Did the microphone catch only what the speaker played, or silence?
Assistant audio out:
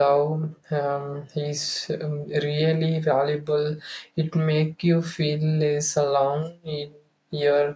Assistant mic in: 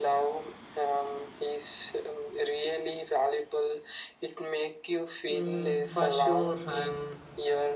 No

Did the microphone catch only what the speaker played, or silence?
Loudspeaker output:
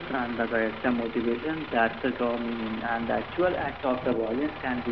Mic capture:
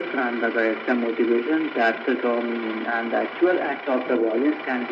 Yes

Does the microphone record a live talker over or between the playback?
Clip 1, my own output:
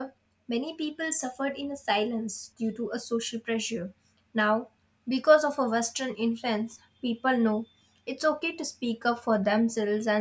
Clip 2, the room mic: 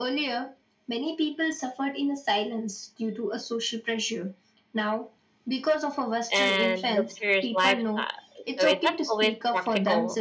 Yes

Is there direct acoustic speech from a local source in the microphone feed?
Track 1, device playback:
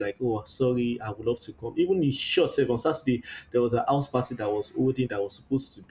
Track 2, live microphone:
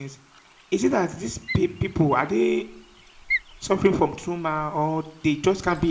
Yes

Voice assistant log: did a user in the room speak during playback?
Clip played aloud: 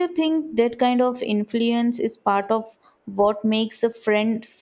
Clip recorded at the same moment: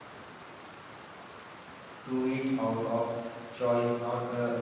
Yes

